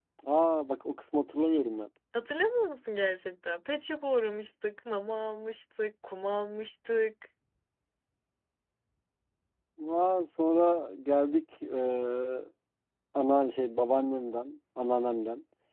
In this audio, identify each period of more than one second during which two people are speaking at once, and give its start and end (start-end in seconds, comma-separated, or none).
none